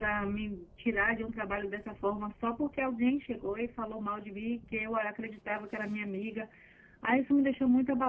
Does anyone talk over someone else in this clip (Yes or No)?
No